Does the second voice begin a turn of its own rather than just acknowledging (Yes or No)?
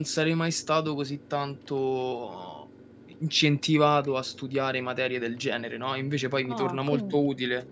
Yes